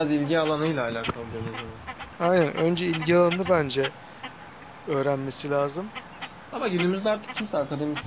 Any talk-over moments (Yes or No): No